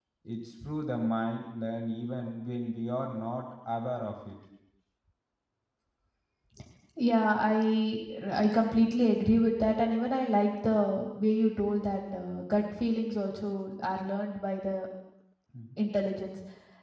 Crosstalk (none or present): none